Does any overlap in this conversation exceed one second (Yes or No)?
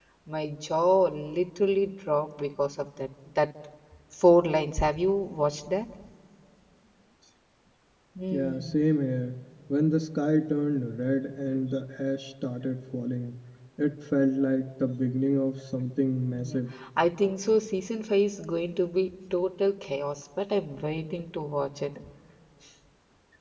No